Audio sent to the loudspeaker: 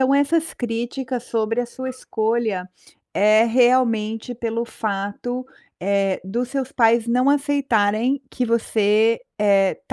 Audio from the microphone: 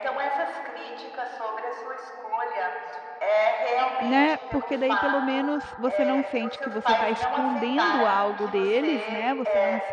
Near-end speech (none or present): present